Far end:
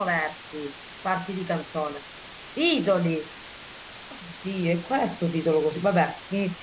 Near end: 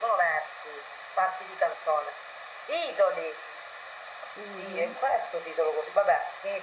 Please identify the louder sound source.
echo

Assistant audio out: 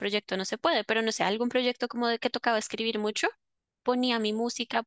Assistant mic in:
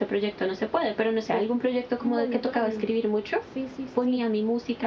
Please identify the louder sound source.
echo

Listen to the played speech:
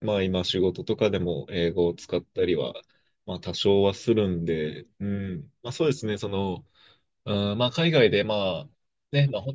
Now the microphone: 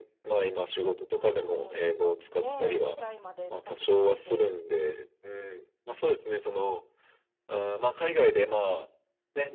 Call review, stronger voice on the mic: echo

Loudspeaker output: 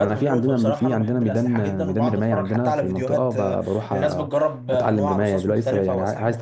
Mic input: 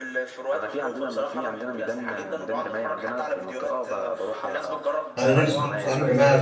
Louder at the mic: user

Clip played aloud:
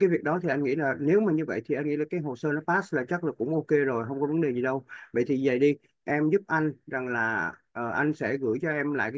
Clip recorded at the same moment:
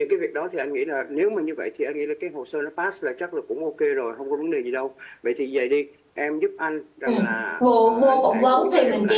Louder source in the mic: user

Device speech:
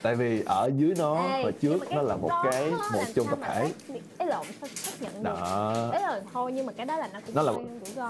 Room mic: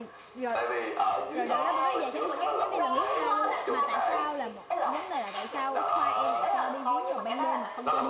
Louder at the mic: echo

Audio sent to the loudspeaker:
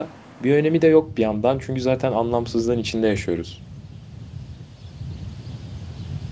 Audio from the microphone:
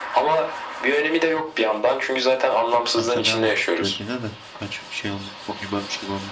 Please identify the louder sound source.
echo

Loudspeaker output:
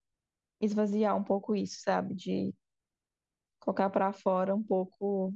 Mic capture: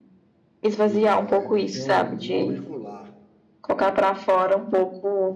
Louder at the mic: echo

